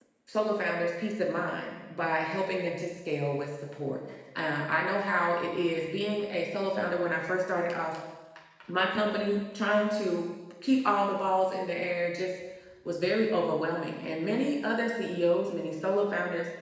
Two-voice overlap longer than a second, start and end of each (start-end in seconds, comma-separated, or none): none